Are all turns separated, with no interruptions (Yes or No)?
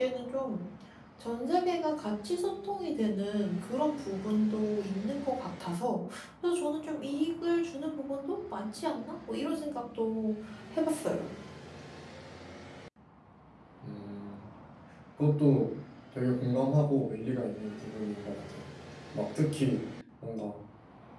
Yes